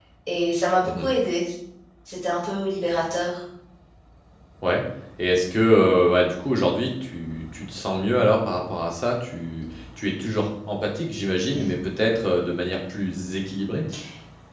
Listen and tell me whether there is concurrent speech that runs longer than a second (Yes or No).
No